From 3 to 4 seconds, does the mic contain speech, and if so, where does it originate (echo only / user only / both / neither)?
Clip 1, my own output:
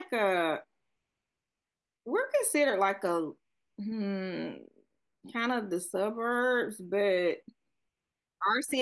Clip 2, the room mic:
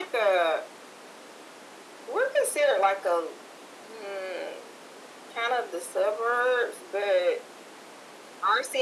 echo only